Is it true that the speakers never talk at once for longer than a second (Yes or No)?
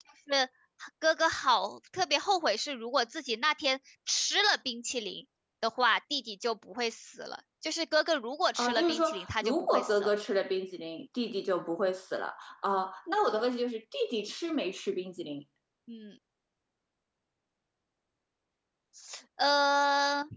No